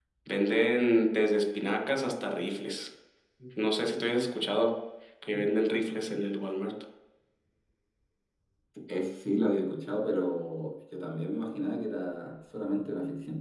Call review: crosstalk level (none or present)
none